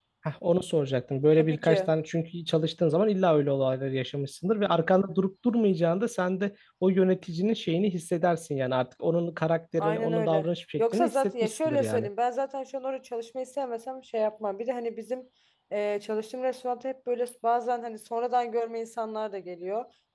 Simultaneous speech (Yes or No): Yes